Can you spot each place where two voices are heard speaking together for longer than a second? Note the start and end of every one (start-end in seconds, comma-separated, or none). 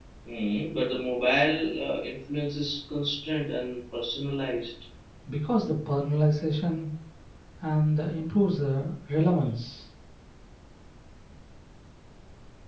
none